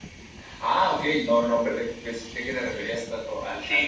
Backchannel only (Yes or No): No